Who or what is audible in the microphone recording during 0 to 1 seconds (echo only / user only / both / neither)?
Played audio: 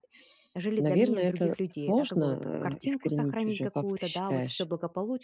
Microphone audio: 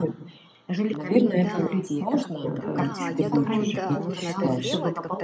echo only